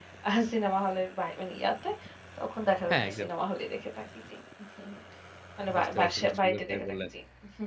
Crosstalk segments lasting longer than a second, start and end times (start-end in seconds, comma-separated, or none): 5.8-7.0